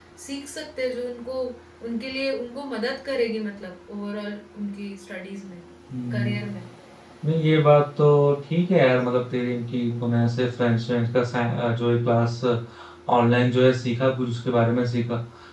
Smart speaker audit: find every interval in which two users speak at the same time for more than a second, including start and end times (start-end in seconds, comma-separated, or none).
none